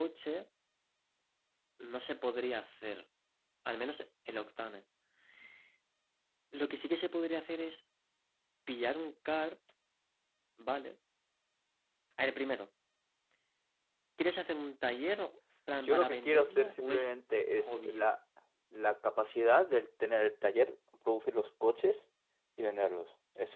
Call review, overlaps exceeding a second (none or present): present